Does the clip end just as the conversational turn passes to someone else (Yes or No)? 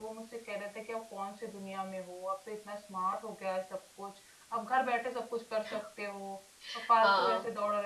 Yes